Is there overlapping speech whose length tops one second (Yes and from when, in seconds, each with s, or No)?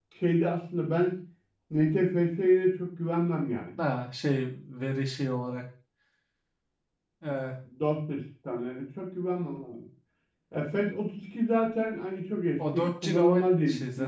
Yes, from 12.6 s